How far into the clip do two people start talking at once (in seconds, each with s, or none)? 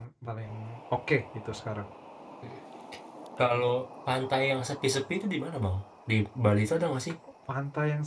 none